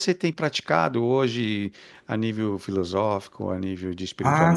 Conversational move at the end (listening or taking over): taking over